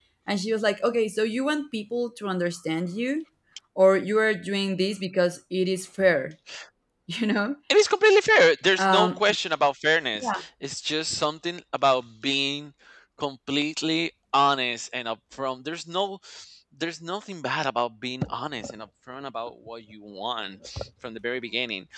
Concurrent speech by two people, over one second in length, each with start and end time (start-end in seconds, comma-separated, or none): none